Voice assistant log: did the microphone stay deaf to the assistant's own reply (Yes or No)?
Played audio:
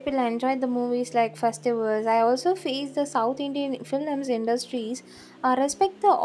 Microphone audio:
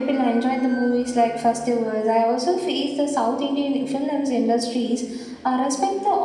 No